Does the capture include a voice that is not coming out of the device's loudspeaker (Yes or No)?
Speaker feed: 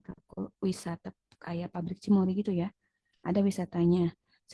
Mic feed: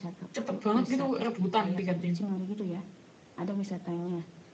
Yes